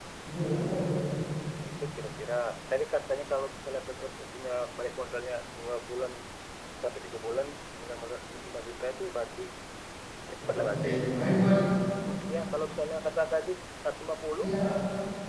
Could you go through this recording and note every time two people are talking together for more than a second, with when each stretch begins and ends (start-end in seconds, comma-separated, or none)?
none